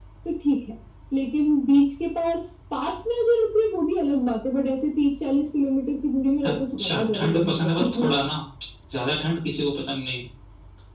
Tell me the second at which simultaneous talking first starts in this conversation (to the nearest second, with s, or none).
6 s